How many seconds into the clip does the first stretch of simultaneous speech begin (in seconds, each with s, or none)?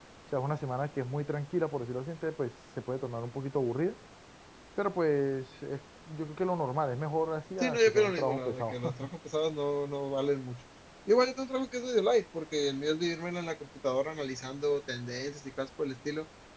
7.6 s